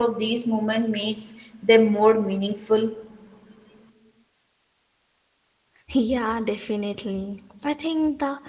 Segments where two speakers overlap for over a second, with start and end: none

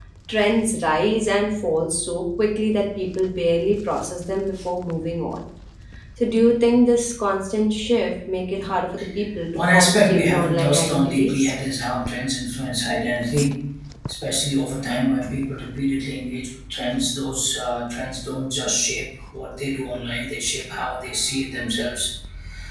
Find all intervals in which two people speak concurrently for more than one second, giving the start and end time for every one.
9.6-11.5

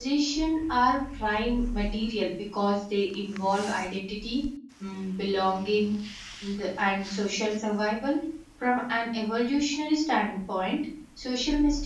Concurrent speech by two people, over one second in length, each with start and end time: none

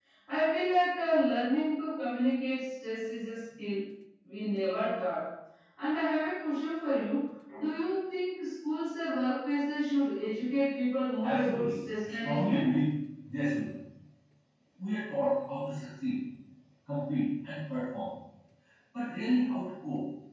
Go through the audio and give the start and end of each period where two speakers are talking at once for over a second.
11.2-12.6

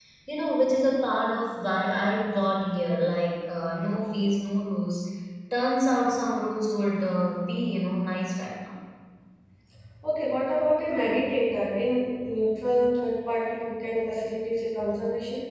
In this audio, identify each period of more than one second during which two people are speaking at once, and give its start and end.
none

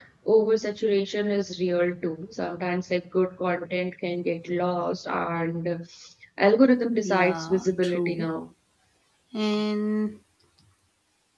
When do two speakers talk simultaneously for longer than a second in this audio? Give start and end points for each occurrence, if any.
7.0-8.3

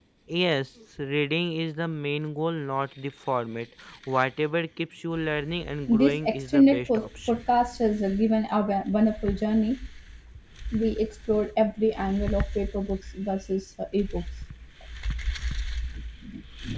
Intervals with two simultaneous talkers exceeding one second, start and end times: 5.9-7.4

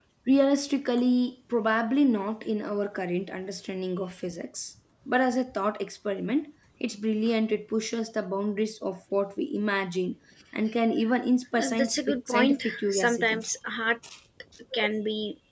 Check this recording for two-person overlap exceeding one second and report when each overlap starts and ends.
11.6-13.4

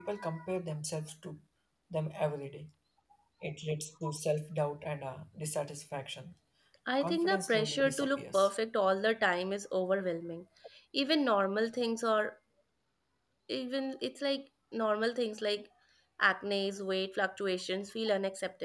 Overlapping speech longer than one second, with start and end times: 7.0-8.5

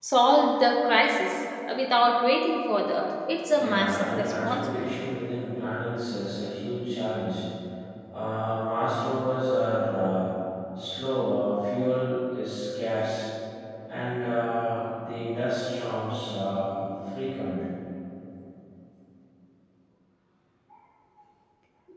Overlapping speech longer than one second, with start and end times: 3.5-4.9

